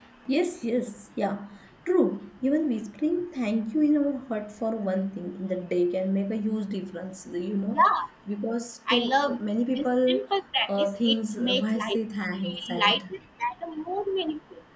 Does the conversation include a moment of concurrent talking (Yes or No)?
Yes